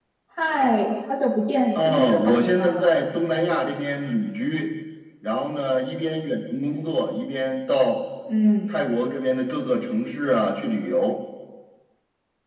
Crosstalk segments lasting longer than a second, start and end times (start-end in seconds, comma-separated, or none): 1.7-2.9